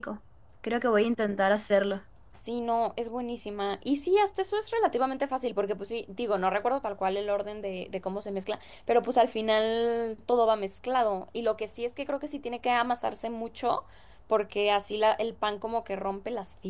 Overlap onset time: none

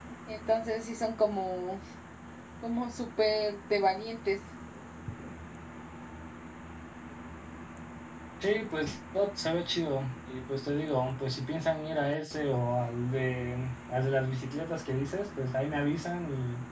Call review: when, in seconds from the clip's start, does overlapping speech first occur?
none

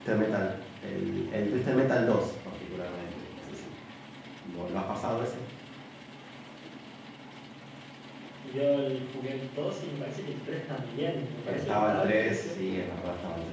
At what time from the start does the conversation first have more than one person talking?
11.4 s

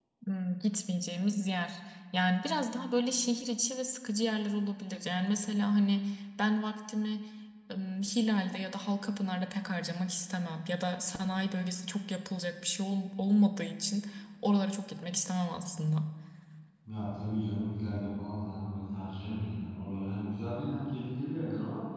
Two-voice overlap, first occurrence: none

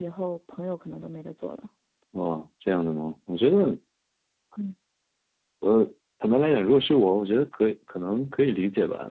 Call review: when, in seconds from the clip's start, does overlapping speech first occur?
none

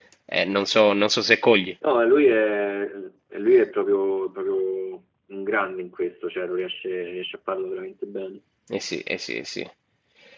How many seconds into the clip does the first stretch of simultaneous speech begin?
none

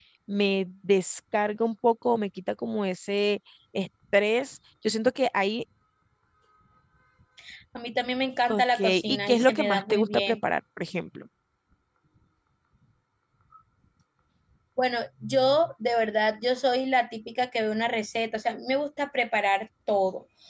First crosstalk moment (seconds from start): 8.5 s

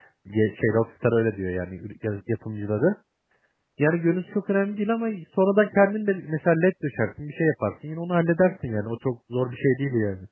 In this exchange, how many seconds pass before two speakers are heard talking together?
none

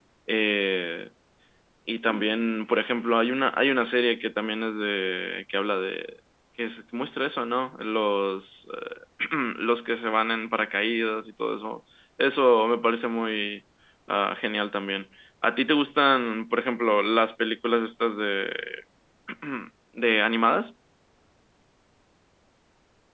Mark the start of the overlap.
none

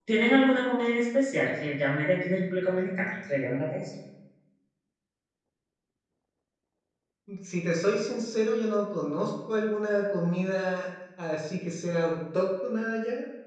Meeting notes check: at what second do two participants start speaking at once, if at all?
none

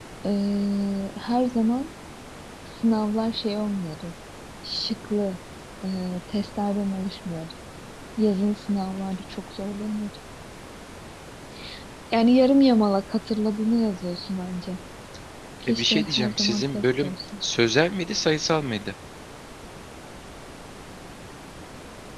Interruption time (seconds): 15.7 s

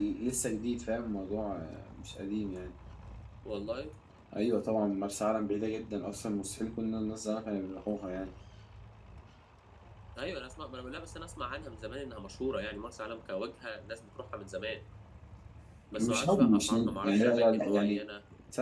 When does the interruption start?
16.0 s

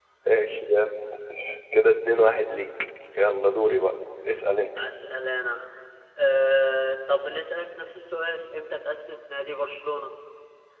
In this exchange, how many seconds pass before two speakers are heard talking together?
none

